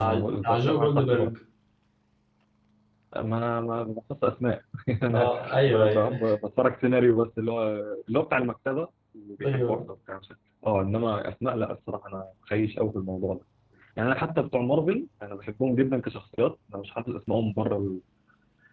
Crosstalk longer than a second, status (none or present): present